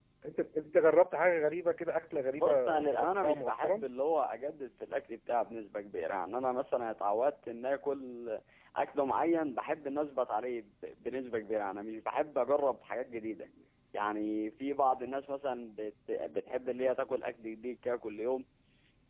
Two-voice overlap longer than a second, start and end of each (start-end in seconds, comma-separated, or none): 2.3-3.9